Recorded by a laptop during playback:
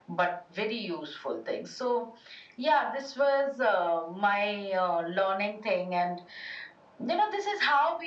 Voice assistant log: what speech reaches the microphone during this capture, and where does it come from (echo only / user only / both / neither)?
echo only